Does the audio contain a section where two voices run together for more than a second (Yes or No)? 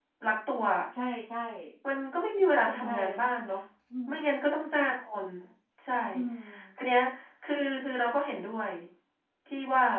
No